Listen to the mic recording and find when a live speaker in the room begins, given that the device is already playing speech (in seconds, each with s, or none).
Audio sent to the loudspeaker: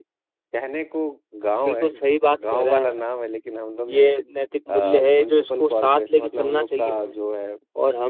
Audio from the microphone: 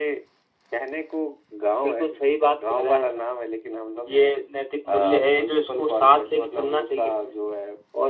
none